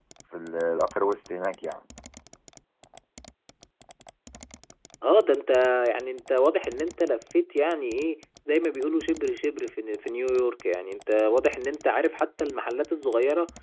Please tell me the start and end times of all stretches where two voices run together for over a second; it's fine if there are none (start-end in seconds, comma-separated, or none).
none